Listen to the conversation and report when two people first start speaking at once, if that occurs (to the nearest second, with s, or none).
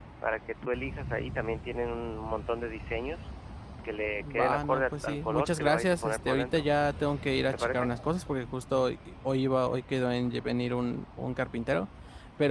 4 s